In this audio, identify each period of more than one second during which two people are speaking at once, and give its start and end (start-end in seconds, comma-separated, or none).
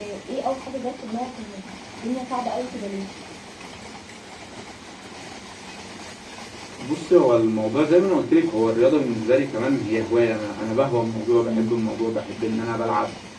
none